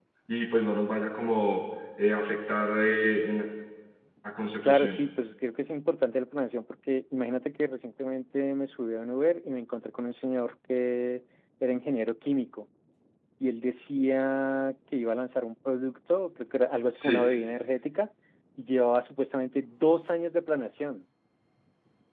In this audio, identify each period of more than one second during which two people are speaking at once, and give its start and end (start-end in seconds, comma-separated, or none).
none